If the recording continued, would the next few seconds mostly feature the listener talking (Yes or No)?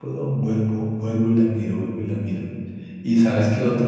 No